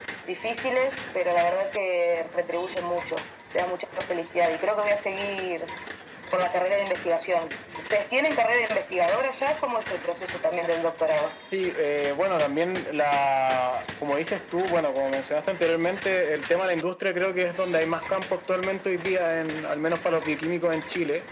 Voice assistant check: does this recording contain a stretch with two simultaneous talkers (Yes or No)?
No